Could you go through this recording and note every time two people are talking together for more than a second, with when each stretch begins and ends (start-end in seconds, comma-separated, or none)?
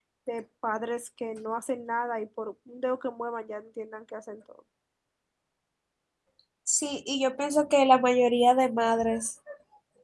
none